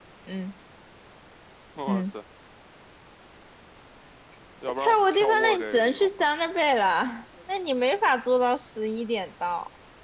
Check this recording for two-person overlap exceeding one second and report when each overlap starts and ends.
4.7-6.3

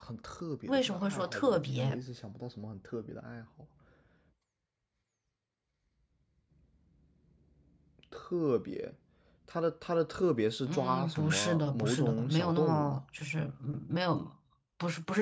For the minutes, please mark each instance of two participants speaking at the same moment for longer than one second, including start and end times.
0.7-2.0, 10.7-13.0

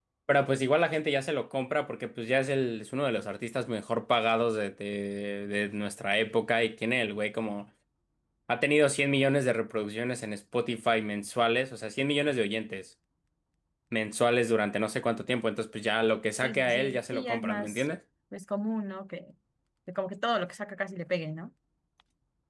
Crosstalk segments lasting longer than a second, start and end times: 16.4-17.9

